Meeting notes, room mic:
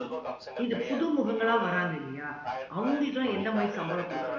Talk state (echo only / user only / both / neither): both